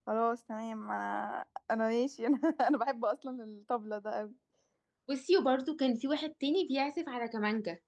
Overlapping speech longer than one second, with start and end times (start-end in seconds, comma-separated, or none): none